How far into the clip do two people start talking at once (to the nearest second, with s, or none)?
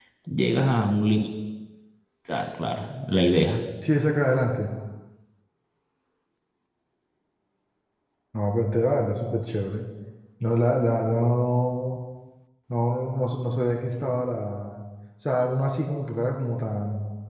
none